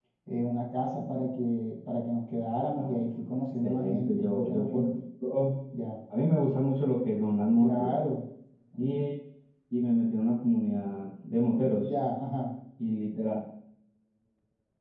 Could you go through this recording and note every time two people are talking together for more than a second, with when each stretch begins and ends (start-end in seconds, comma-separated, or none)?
3.6-4.9